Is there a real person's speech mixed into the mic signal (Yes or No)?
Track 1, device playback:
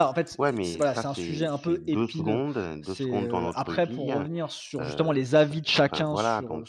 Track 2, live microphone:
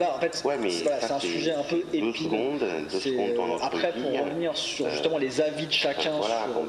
No